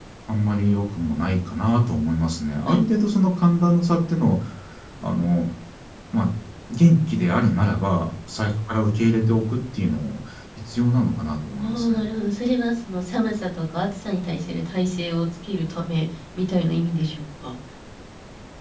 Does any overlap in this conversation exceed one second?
No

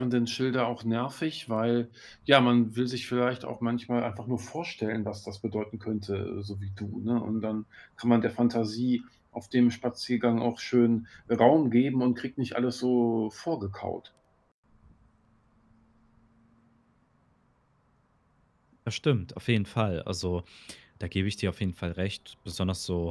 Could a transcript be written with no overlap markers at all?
Yes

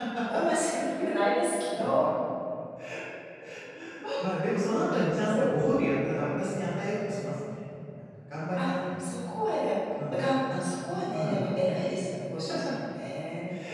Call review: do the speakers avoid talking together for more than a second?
Yes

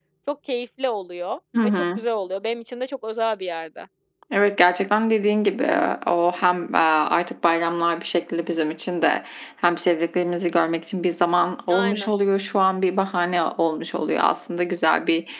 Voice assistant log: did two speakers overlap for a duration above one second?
No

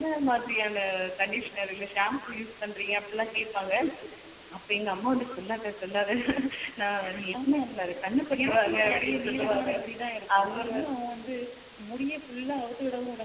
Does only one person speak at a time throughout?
No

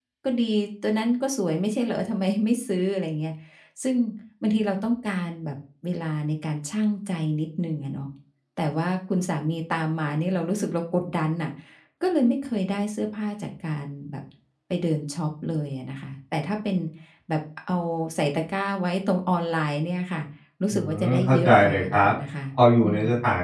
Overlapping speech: Yes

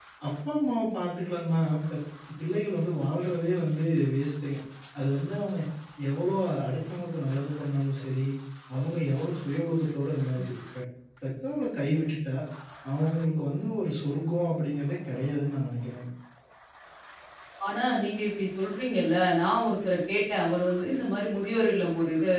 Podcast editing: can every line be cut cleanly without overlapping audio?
Yes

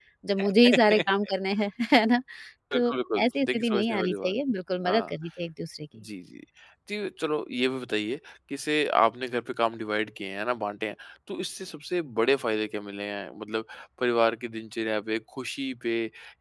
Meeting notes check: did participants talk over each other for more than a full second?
Yes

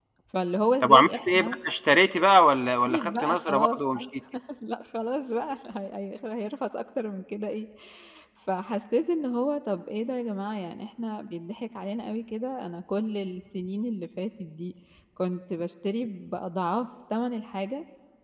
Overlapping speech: Yes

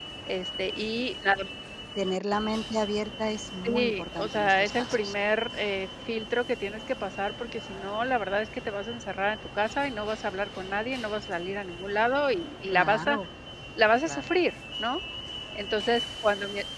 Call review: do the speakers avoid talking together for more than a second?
No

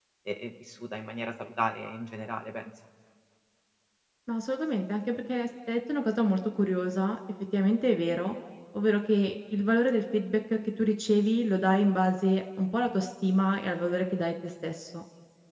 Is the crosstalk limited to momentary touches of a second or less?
Yes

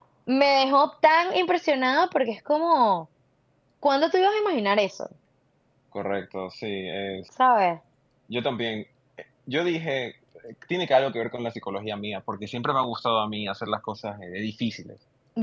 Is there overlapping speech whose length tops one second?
No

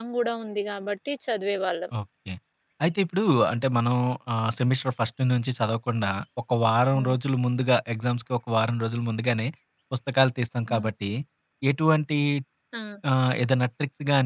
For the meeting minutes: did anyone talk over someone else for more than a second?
No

